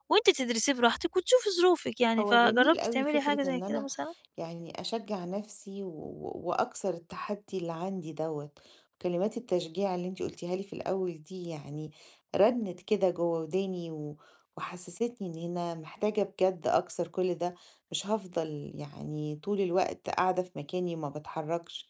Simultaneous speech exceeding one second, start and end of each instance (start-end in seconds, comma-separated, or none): 2.2-3.9